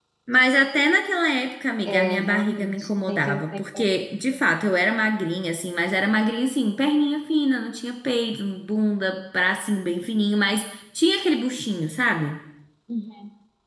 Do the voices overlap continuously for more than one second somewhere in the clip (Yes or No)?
Yes